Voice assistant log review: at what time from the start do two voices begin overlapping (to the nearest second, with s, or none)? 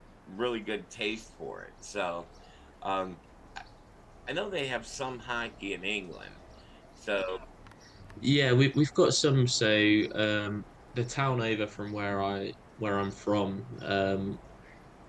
none